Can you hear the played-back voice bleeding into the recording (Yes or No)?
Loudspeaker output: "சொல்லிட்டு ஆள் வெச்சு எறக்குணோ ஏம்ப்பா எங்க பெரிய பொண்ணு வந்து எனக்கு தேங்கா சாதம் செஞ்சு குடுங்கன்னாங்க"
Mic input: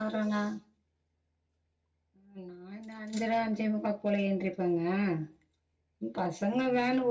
No